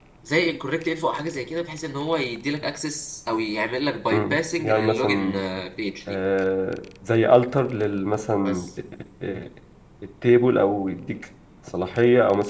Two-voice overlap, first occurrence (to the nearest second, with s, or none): 4 s